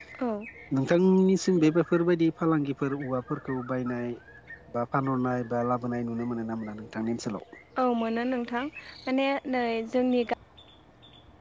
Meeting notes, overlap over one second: none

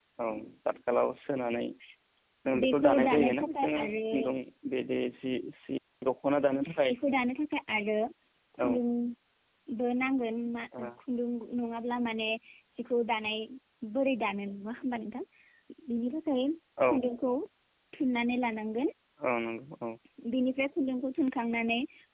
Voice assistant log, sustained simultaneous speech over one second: present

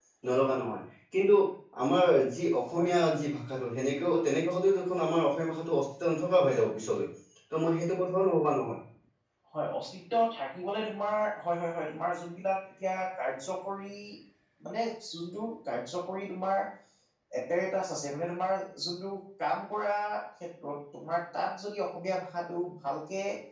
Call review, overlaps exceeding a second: none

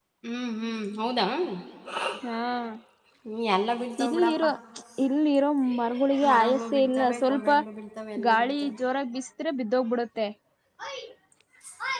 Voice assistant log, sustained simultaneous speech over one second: present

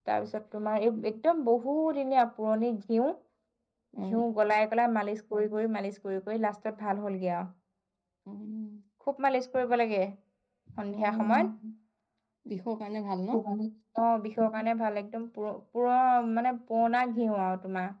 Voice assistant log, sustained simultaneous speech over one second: none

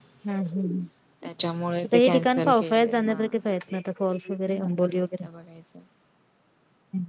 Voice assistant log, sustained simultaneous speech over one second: present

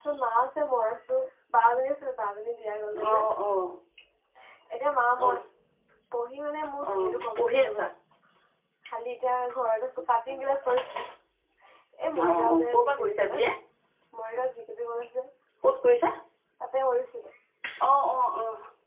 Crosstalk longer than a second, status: present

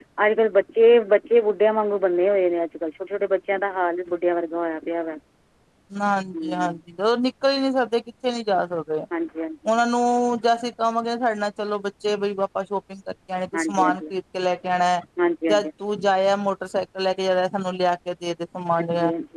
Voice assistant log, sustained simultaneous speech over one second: none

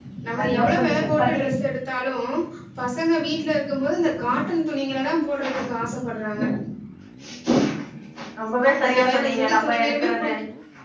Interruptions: present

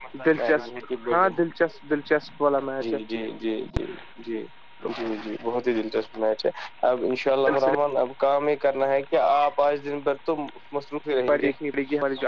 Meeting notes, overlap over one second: none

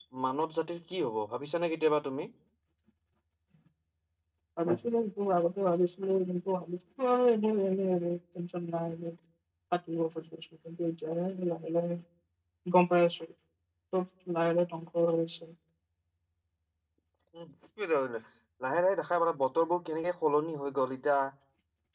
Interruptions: none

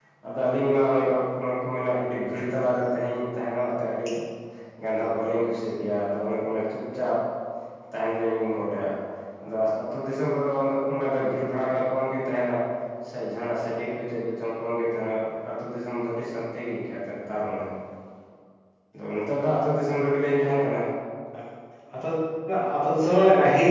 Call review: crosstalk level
none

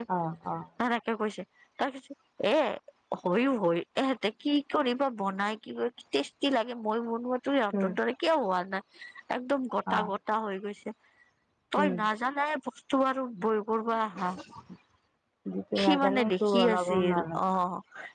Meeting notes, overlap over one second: present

